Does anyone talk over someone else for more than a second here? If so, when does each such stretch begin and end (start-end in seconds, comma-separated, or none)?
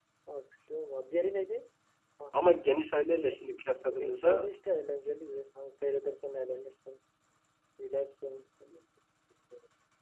none